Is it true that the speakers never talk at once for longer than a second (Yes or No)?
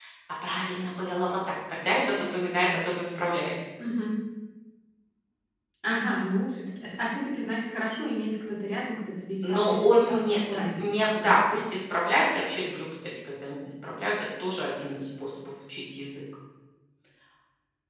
No